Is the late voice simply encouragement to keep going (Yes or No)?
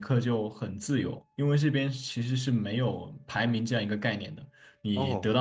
Yes